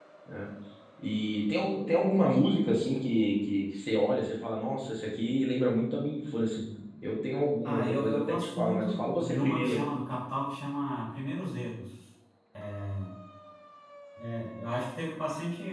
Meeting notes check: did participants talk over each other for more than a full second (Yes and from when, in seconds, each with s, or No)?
Yes, from 7.6 s